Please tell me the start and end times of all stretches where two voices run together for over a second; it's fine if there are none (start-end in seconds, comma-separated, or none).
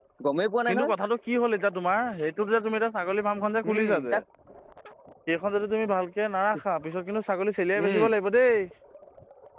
none